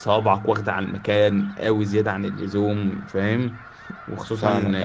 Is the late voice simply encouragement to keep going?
Yes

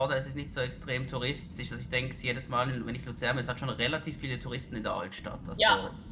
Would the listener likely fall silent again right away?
No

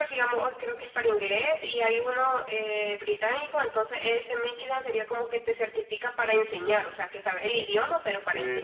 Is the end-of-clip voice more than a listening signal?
Yes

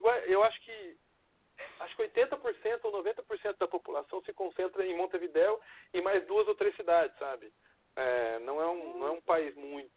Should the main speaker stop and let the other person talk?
No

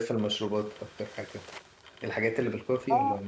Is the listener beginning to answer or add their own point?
Yes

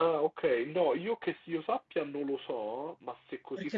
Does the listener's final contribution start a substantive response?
Yes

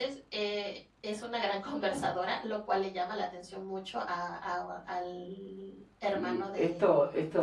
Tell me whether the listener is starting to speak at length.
Yes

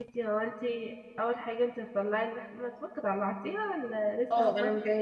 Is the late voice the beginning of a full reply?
Yes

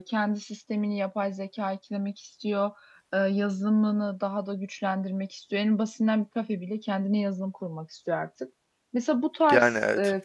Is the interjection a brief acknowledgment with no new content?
Yes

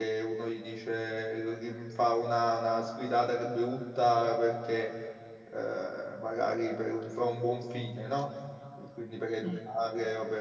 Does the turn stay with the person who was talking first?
Yes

